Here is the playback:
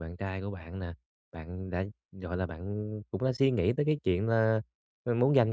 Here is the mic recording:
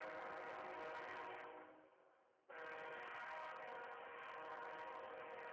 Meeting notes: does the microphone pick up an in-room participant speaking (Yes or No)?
No